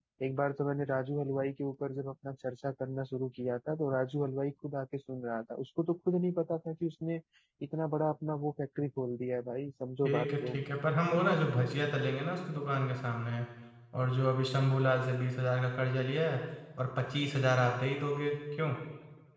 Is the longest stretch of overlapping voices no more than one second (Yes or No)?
Yes